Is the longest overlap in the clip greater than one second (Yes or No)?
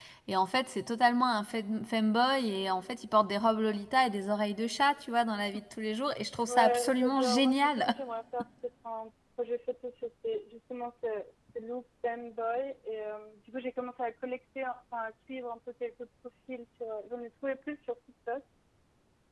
Yes